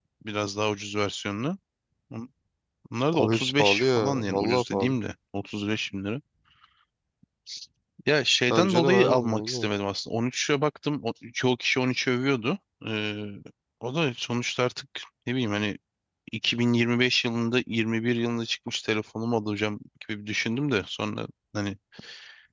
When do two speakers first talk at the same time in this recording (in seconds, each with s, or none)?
3.2 s